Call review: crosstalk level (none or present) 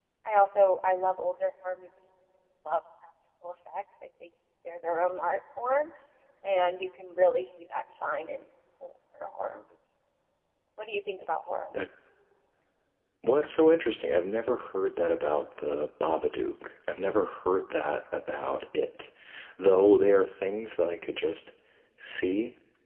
none